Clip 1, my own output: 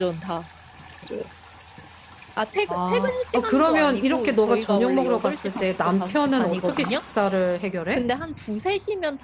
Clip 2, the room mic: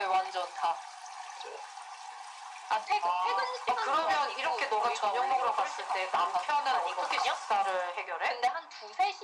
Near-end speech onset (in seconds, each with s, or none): none